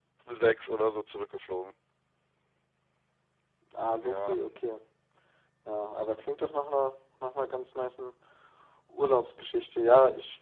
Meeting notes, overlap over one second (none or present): none